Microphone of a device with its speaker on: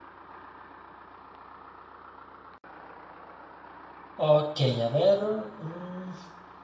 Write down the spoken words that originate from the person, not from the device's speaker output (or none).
Ok, a ver, mm,